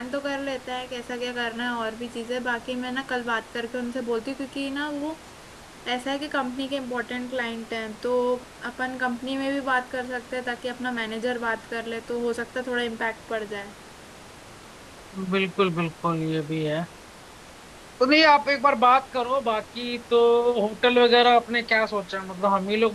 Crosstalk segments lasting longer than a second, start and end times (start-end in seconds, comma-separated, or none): none